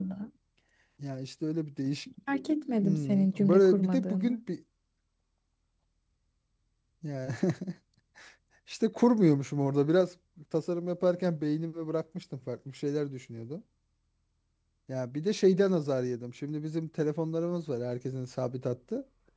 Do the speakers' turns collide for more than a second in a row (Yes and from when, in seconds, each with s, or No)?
Yes, from 2.8 s